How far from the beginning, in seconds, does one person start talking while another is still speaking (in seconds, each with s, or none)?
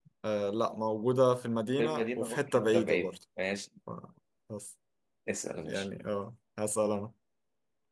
1.8 s